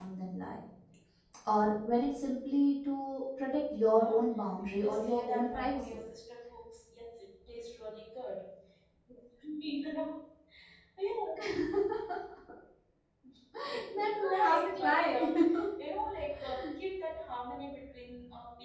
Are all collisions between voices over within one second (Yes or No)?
No